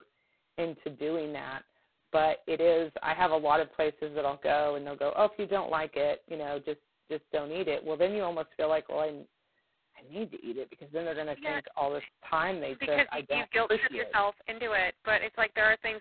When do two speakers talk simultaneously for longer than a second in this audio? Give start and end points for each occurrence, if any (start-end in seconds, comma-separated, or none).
12.8-14.1